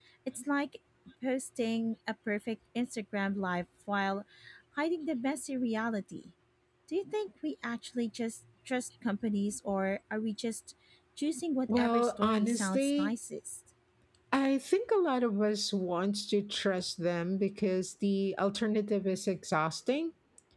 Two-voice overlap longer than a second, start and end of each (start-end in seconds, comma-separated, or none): 11.8-13.1